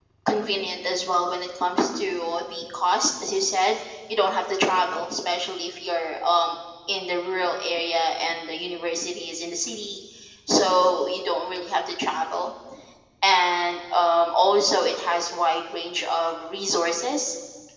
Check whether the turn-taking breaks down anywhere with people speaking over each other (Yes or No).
No